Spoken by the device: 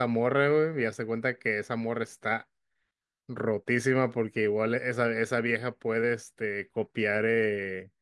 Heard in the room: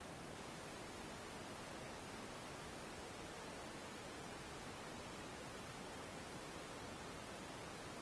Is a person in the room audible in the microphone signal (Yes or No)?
No